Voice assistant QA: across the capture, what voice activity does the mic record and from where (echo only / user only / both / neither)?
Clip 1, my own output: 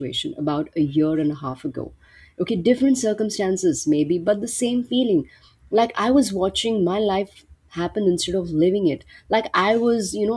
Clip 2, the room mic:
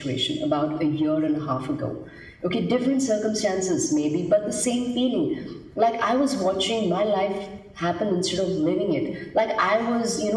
echo only